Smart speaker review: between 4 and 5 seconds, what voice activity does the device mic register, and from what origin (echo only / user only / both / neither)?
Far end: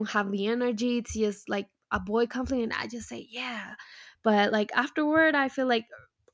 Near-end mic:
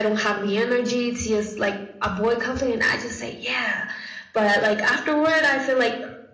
echo only